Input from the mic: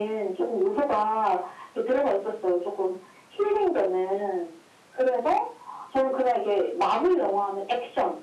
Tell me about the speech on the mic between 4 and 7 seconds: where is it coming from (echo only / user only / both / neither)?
echo only